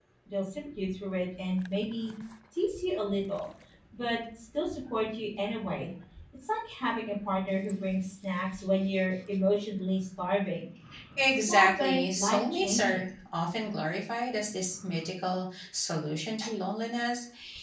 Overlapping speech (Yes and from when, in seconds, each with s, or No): Yes, from 11.5 s